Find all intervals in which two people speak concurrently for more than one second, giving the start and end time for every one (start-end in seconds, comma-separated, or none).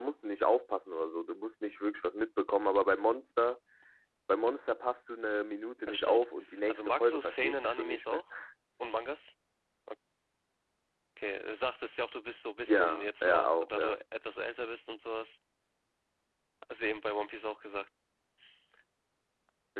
6.7-8.2, 12.7-14.0